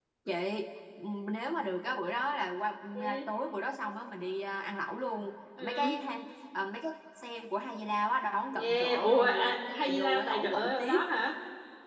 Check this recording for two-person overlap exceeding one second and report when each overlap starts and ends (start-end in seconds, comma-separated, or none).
8.5-11.0